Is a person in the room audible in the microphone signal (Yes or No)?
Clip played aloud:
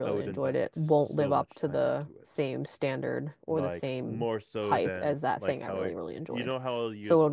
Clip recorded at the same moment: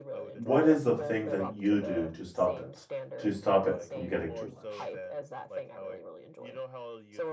Yes